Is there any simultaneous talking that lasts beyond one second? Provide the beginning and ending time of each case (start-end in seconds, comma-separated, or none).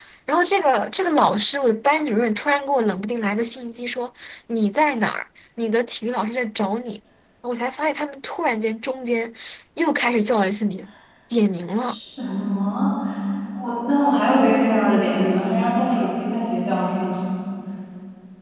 none